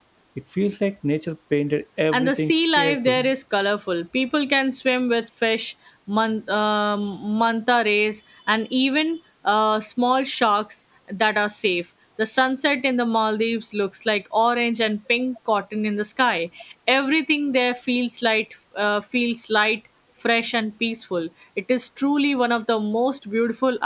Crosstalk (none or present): present